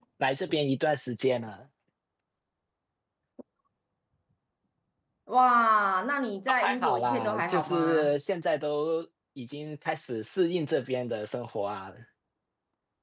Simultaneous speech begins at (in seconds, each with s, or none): 6.6 s